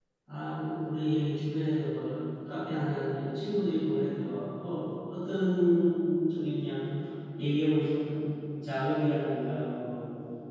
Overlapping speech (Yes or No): No